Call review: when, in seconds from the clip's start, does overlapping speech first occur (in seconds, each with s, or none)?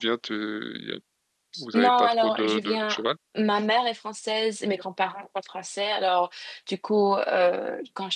1.7 s